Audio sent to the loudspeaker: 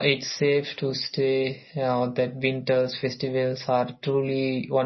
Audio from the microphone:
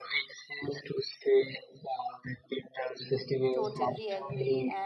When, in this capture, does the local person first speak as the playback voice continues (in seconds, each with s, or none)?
3.5 s